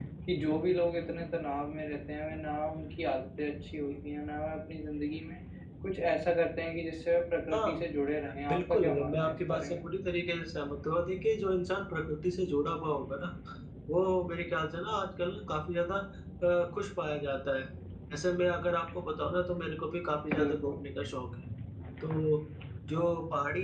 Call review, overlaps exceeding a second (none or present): present